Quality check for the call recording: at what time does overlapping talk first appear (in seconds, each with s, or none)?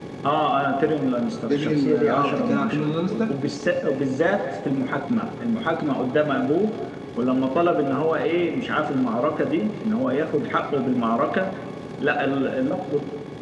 1.5 s